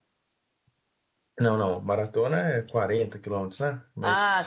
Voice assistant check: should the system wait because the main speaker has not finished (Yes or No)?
No